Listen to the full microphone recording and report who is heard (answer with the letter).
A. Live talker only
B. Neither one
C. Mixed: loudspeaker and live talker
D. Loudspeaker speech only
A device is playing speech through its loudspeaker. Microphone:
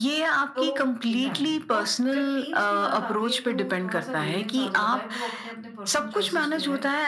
C